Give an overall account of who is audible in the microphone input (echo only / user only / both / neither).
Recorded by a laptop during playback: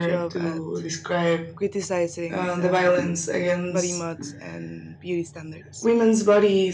both